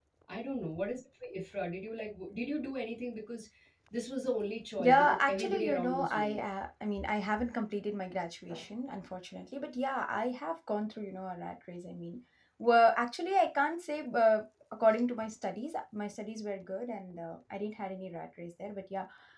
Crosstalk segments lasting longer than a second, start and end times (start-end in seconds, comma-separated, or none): 4.8-6.4